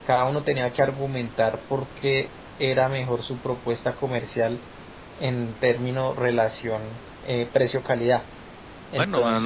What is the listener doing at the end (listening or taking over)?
taking over